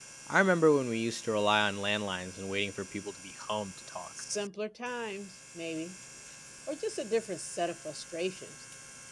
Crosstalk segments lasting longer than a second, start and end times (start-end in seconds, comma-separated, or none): none